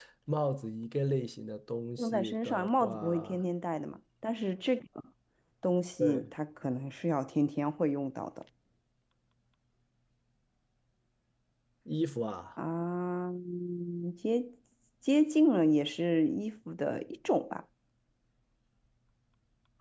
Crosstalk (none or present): present